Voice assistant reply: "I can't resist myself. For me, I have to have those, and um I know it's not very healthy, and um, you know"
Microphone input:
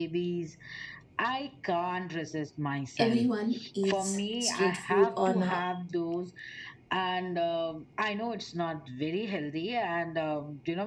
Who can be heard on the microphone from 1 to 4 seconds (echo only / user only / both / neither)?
both